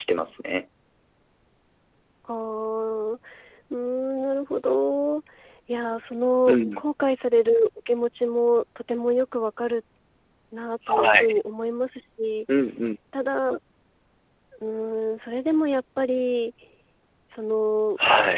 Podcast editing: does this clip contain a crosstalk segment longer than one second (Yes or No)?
No